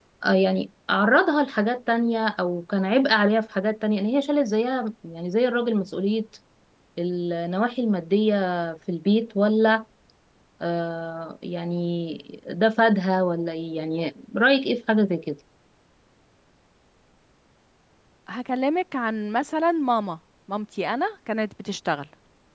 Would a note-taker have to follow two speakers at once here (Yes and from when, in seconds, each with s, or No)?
No